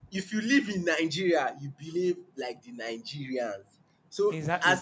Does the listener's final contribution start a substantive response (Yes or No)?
No